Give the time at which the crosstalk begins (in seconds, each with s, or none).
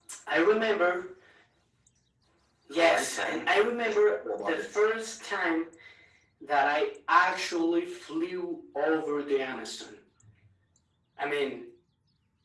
2.8 s